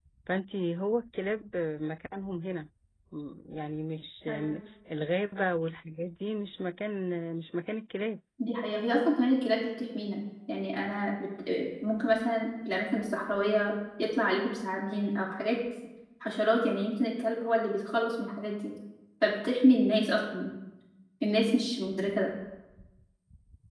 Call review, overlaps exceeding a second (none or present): none